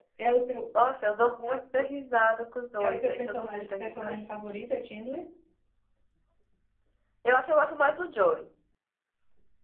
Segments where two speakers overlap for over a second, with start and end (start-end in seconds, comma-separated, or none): 2.8-4.2